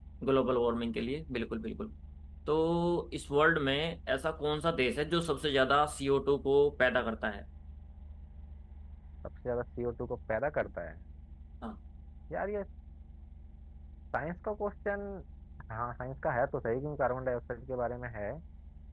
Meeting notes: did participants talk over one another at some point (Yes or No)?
No